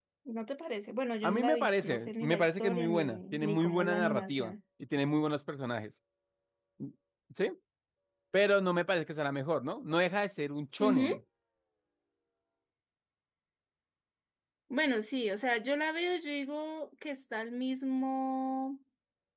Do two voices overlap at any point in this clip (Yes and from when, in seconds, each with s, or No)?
Yes, from 1.2 s